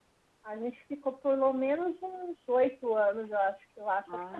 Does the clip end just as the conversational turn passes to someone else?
No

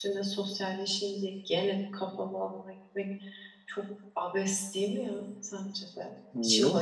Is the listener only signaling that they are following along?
No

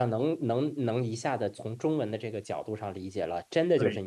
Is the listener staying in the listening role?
Yes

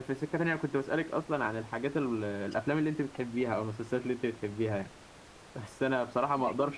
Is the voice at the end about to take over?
No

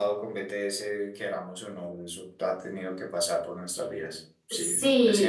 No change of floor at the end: No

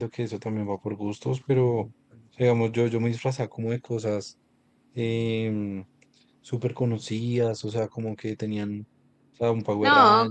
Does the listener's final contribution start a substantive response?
Yes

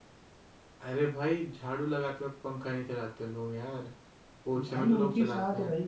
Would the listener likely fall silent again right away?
No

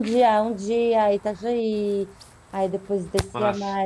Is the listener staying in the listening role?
Yes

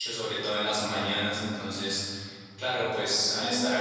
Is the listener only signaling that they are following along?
Yes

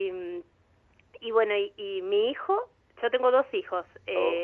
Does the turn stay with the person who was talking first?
Yes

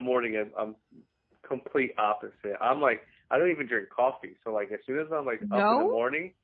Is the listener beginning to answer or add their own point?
No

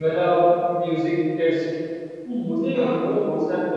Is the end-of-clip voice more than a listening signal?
No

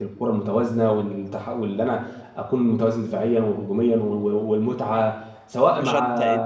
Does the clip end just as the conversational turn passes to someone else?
Yes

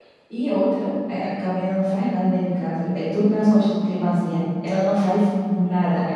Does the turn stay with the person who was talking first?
Yes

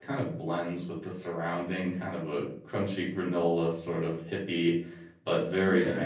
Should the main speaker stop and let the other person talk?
No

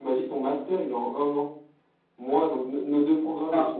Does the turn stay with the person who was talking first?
No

